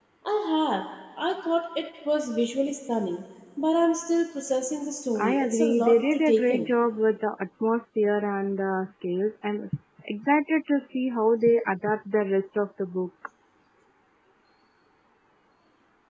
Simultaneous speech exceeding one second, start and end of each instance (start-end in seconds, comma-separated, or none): 5.2-6.7